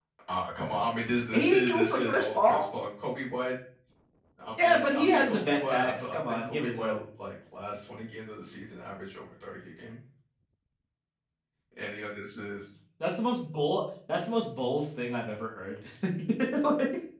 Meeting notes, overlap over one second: present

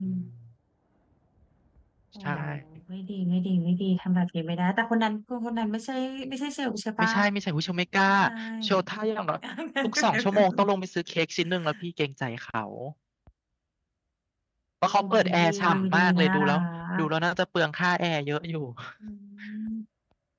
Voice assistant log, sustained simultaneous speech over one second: present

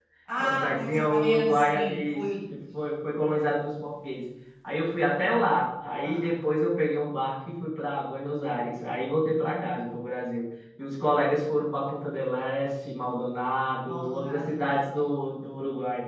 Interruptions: present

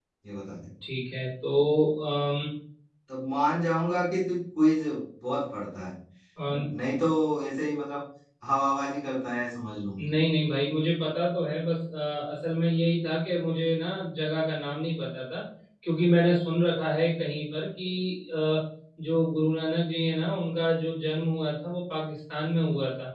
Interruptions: none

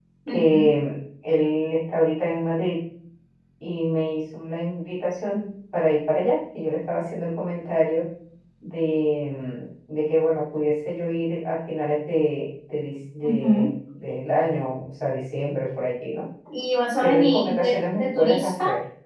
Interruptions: present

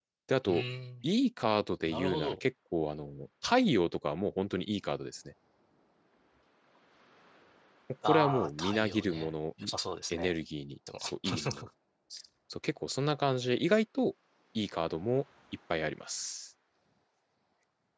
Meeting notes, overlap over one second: present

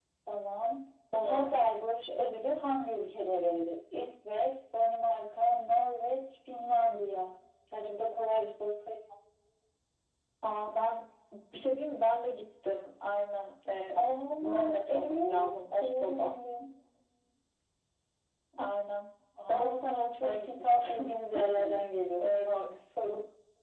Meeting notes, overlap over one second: present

